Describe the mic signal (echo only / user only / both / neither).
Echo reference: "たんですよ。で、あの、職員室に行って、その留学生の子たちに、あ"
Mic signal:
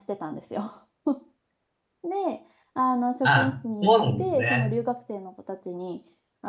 both